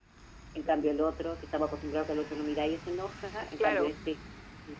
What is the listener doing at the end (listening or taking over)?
listening